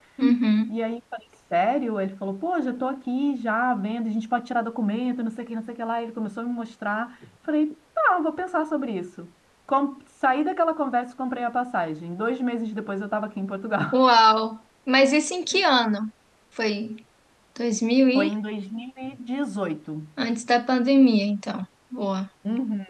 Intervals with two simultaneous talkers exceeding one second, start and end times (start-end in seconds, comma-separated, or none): none